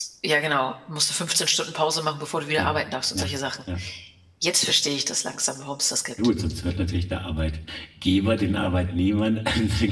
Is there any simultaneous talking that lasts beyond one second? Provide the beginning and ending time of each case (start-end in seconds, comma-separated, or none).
none